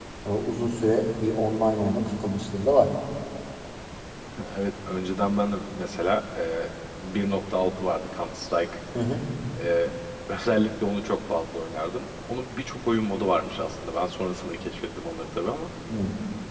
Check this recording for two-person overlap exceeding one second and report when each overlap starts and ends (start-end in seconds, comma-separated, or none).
none